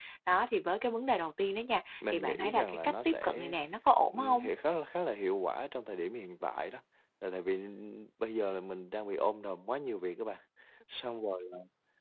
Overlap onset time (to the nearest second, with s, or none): 2 s